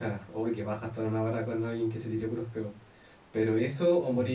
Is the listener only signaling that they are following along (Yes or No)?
Yes